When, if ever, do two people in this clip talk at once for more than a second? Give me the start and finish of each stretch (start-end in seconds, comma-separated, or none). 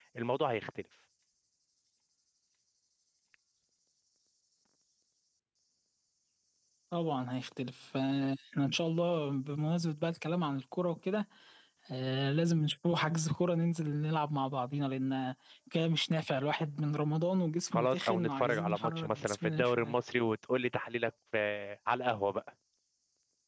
17.7-19.9